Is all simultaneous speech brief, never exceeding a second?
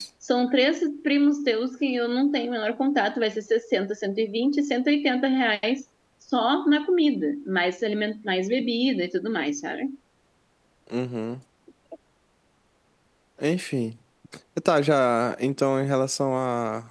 Yes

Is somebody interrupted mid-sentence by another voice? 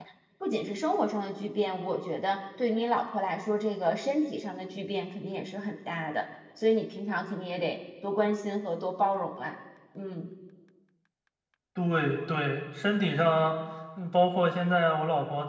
No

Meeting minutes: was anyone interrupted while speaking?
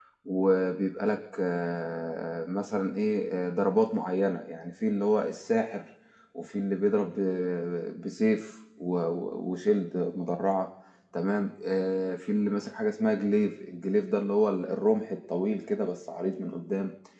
No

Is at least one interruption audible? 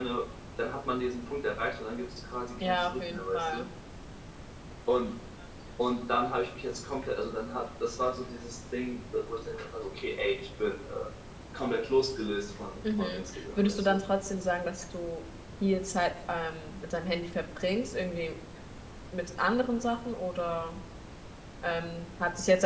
Yes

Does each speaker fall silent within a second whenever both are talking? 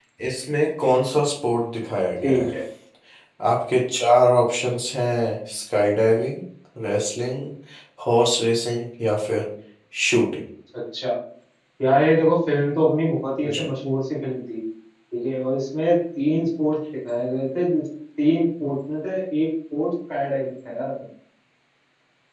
Yes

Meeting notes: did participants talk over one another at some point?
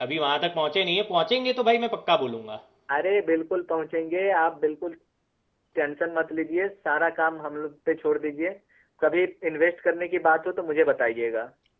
No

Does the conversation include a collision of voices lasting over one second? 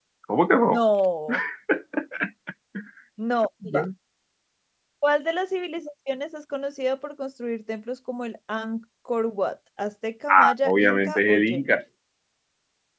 Yes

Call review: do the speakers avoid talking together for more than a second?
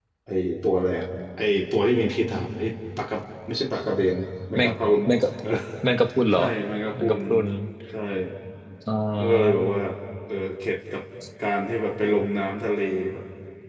Yes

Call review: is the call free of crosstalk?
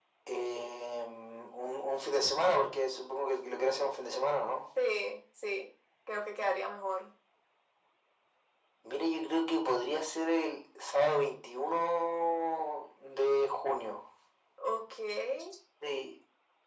Yes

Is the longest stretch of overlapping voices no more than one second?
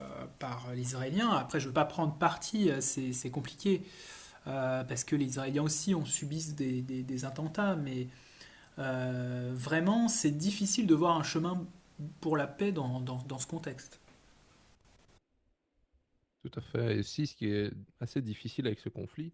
Yes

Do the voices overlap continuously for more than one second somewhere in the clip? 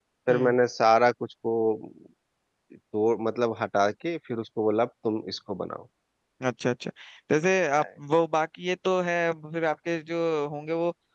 No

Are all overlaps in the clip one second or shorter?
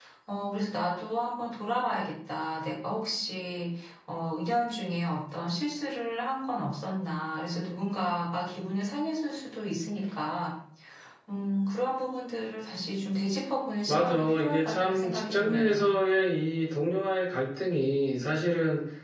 No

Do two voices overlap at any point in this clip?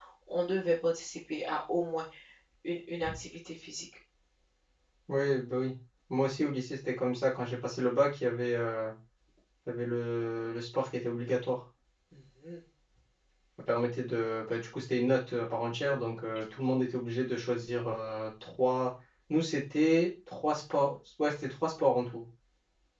No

